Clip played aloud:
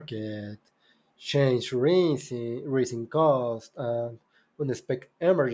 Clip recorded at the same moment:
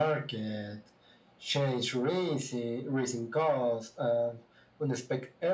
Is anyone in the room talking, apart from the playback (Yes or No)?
No